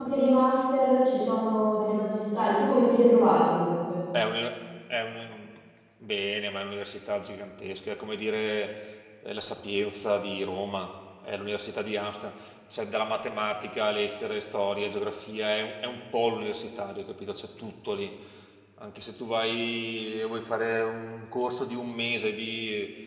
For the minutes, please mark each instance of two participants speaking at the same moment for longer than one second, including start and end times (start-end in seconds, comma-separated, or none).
none